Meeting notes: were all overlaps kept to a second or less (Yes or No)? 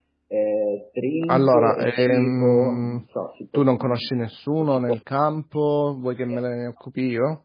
No